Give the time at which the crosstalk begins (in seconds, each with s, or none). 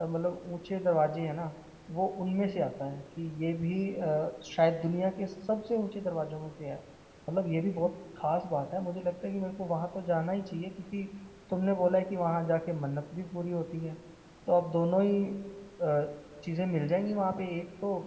none